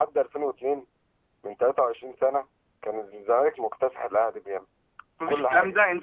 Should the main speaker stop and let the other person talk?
Yes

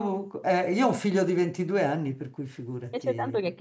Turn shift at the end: Yes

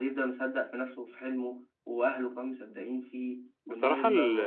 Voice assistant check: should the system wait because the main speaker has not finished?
No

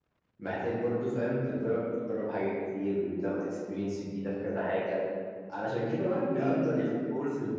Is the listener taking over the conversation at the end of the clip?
No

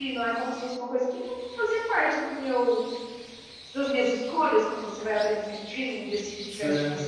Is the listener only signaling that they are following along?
Yes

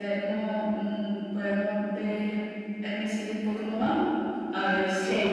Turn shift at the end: No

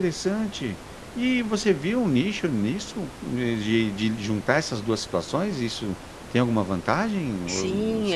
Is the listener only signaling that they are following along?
No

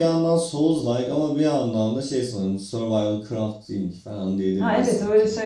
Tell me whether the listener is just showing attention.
No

